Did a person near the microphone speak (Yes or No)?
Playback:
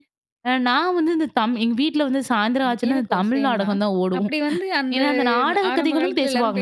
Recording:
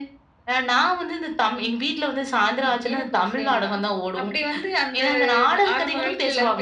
No